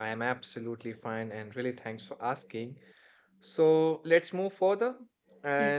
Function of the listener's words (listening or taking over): listening